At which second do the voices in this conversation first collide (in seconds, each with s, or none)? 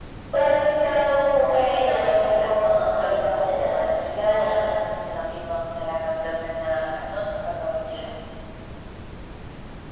1.4 s